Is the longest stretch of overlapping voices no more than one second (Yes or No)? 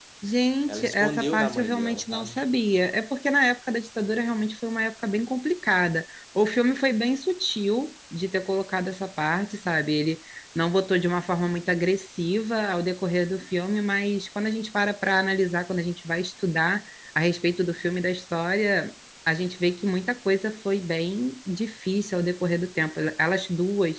No